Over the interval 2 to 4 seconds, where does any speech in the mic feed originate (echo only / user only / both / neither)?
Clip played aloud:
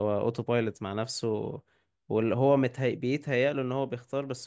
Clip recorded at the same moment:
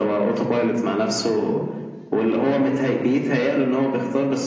echo only